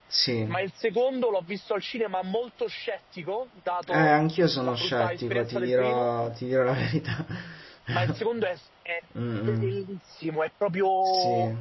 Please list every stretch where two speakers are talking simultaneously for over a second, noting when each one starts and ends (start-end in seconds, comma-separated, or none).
4.6-6.1